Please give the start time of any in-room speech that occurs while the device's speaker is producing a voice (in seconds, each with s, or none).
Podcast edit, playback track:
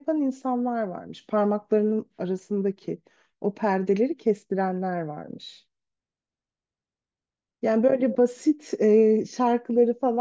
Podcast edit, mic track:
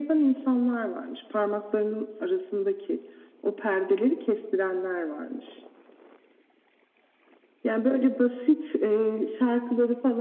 none